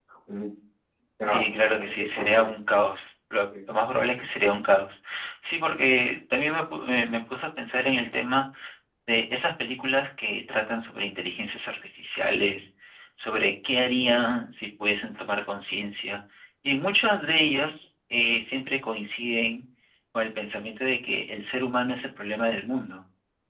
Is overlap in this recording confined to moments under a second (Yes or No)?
No